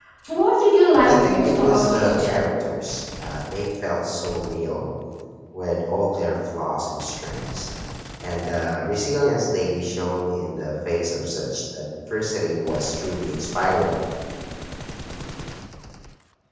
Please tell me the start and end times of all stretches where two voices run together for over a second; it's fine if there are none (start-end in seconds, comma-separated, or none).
1.0-2.3